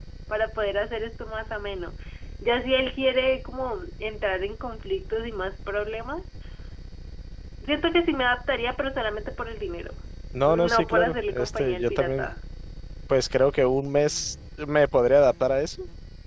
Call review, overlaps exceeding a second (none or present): present